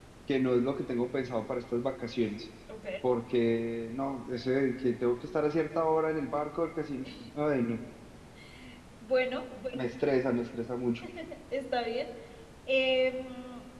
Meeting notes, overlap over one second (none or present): none